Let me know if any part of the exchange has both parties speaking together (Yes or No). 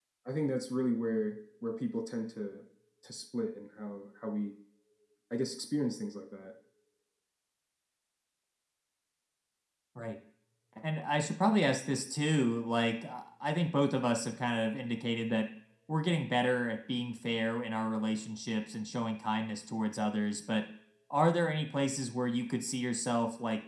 No